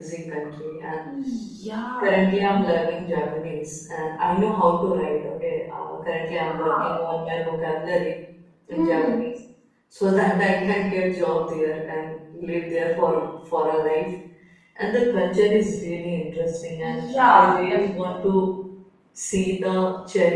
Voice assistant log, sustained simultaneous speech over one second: present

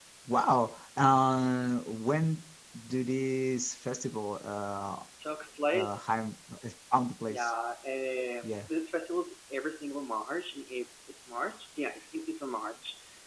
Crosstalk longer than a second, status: none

